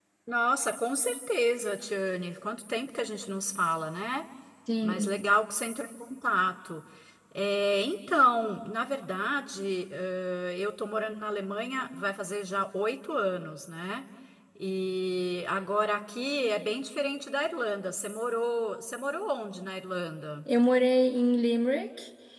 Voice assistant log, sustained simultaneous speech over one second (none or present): none